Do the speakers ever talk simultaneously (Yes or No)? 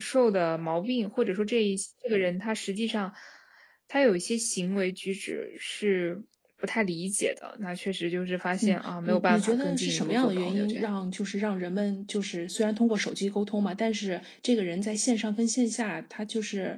Yes